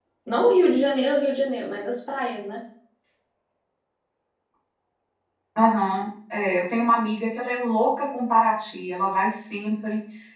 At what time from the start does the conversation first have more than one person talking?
none

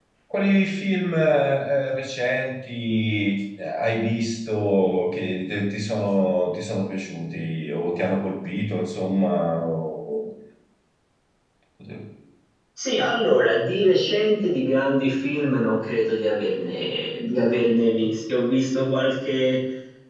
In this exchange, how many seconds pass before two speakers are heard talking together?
none

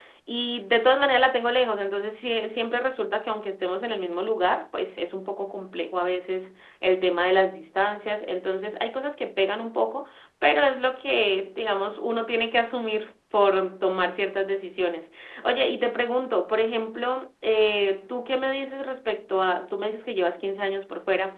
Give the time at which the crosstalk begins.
none

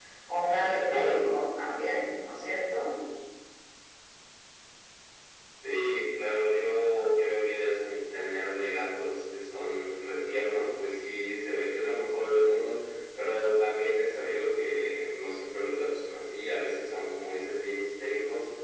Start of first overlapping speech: none

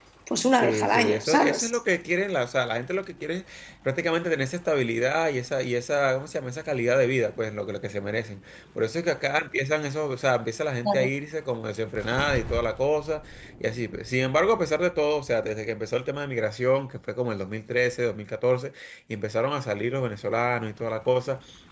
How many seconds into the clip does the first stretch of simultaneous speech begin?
1 s

